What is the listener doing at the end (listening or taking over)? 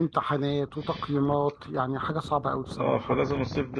taking over